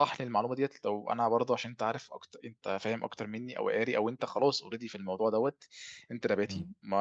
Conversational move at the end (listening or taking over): listening